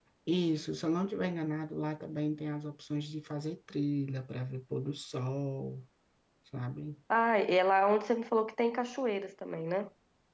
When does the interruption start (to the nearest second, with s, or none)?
none